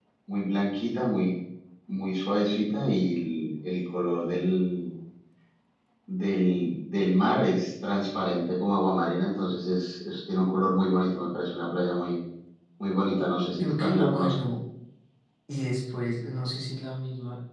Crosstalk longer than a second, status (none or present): present